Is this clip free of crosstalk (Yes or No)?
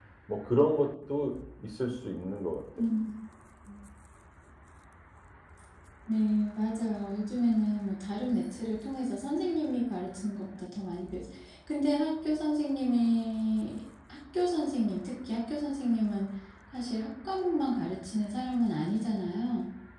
Yes